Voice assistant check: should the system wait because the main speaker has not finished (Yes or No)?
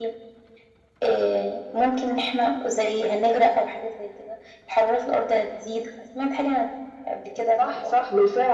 No